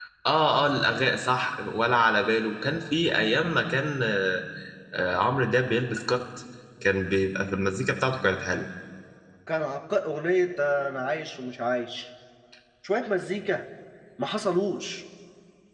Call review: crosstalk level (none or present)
none